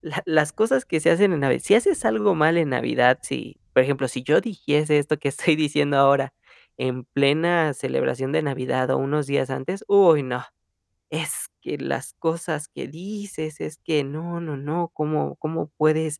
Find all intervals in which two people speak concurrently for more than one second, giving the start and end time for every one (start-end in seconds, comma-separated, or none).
none